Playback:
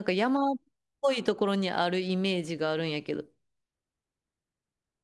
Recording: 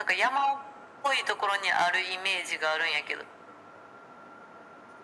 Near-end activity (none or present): none